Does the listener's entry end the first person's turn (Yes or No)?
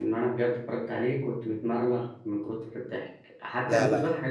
No